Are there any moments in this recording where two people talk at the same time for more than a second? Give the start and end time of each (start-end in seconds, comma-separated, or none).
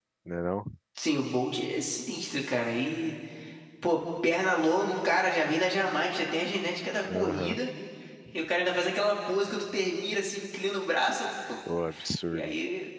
none